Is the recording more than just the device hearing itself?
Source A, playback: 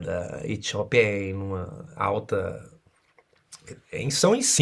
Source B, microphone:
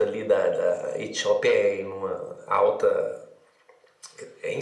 No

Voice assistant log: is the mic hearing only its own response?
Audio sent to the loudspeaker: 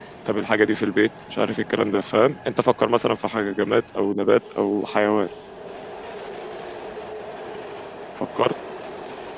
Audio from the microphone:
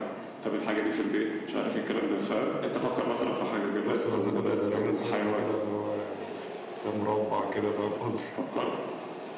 No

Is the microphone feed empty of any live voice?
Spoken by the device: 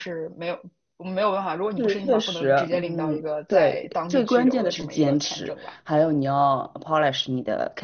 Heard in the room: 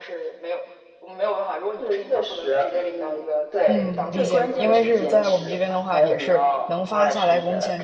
No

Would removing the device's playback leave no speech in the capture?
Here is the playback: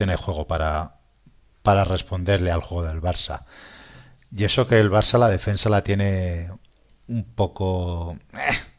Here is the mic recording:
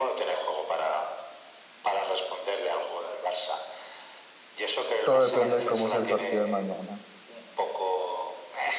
No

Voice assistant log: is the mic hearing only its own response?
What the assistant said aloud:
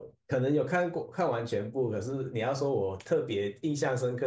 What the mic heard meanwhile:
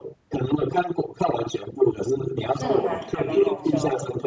No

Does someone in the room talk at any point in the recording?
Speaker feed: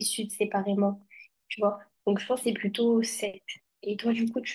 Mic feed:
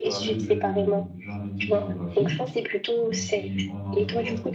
Yes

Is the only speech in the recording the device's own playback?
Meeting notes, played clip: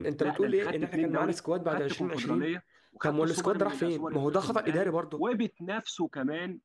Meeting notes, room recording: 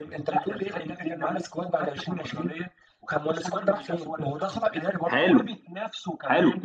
No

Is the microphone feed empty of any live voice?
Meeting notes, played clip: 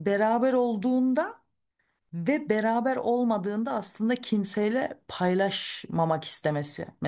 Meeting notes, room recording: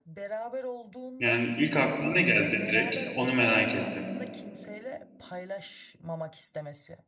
No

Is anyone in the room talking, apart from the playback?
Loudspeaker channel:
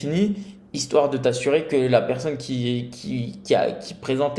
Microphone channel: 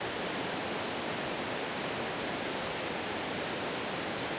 No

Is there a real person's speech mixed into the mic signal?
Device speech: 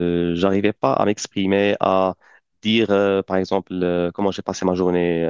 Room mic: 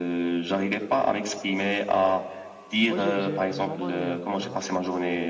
Yes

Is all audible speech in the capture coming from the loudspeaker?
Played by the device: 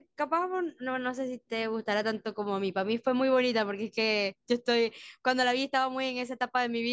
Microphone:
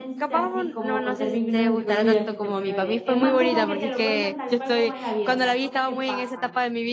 No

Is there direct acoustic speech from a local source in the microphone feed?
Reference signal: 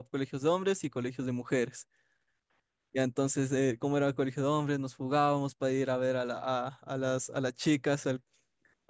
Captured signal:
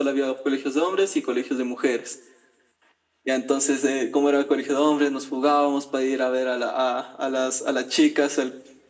No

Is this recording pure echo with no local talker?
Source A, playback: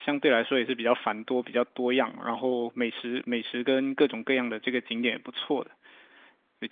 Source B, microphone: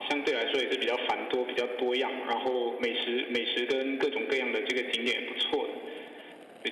Yes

